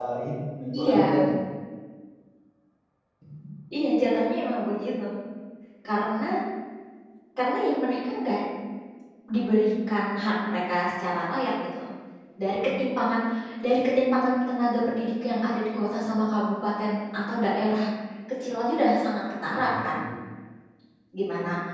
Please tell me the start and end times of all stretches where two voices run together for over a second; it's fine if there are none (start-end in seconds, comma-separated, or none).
none